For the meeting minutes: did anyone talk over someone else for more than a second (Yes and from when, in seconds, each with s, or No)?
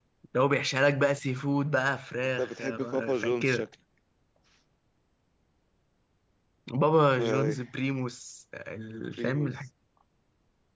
Yes, from 2.4 s